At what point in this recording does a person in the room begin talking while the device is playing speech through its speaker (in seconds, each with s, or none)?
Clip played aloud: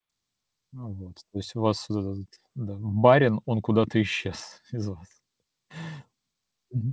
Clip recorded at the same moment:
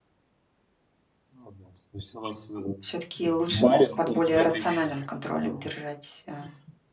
2.8 s